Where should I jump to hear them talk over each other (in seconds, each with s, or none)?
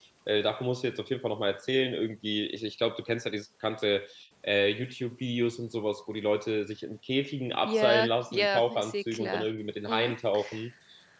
7.6 s